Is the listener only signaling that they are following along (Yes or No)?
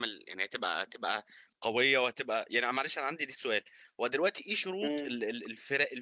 Yes